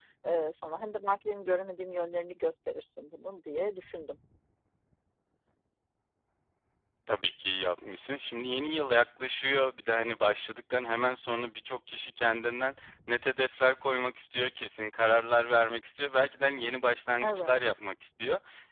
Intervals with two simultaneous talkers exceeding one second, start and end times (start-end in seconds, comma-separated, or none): none